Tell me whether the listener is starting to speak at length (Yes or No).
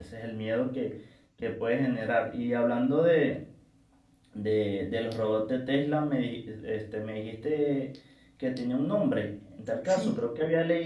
No